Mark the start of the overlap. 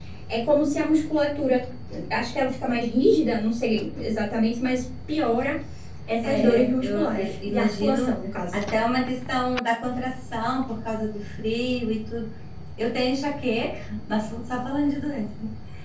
6.2 s

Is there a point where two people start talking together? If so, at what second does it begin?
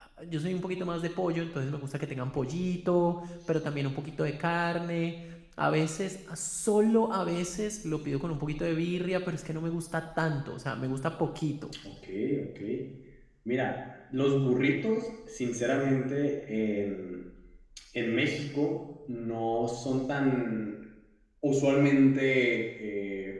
none

